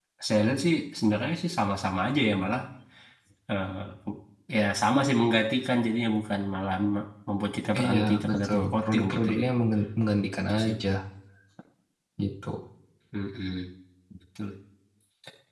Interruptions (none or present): present